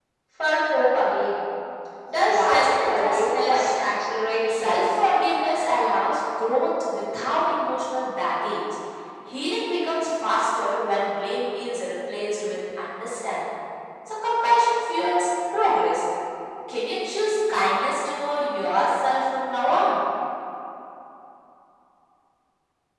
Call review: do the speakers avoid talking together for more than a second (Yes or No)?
No